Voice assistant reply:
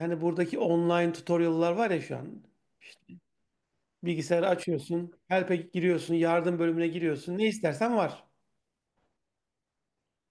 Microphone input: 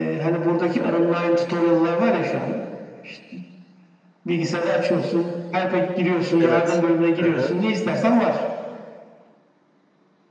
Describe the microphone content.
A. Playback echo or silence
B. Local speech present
B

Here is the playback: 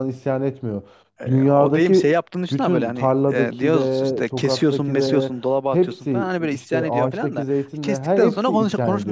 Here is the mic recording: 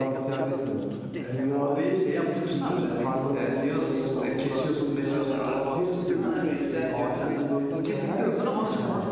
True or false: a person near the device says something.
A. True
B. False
A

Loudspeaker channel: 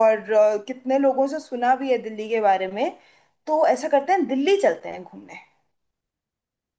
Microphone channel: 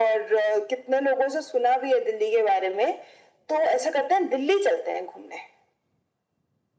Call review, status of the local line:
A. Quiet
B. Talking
A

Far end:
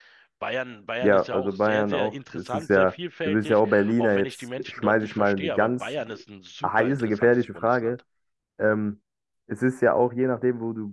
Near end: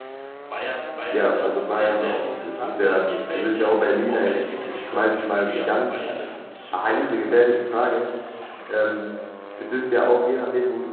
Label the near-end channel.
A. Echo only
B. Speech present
A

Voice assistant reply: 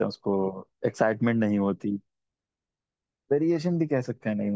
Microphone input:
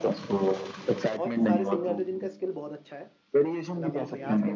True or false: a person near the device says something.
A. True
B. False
A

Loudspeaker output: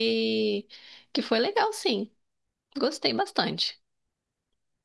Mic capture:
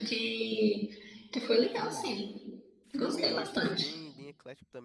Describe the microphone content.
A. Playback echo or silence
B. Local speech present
B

